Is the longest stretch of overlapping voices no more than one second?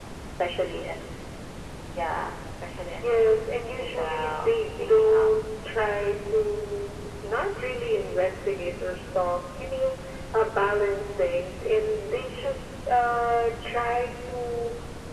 No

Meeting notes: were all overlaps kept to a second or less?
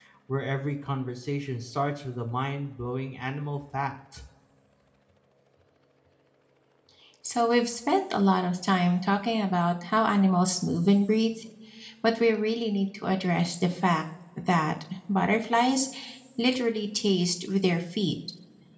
Yes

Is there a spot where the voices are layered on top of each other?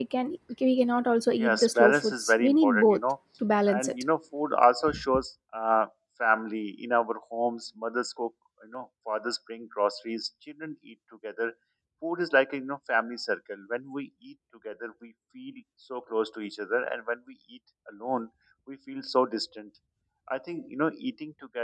Yes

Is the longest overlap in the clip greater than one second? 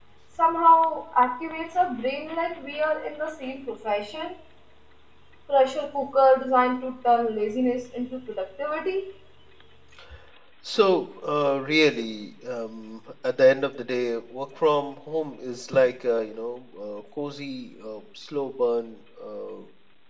No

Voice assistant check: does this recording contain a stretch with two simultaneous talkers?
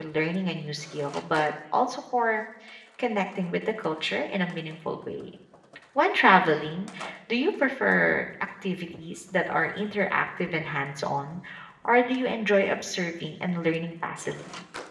No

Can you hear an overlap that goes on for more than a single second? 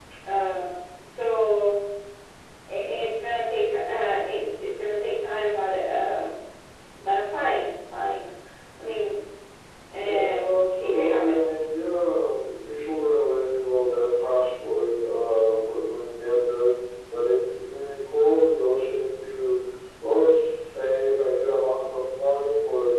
Yes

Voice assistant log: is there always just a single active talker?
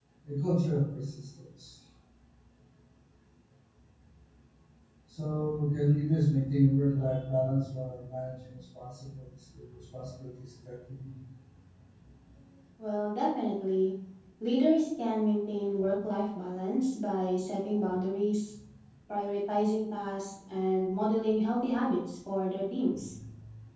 Yes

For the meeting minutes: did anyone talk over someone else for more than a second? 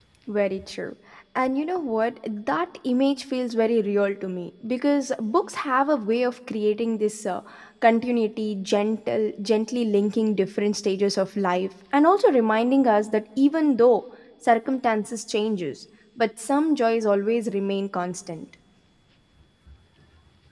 No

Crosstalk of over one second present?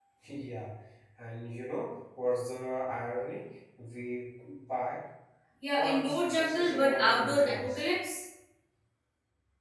Yes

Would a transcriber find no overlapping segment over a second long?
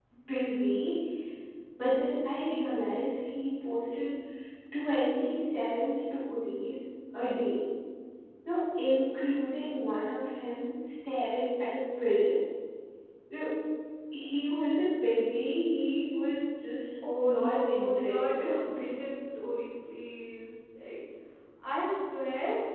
No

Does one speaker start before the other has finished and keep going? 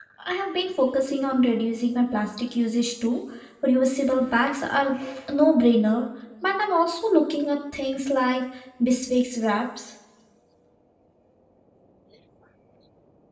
No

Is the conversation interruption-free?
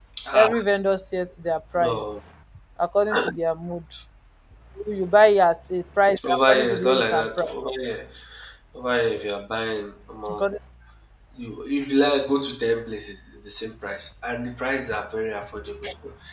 No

